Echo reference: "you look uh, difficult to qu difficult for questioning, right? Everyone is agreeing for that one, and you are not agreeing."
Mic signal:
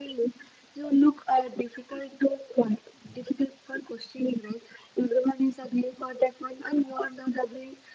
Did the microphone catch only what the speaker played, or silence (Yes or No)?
Yes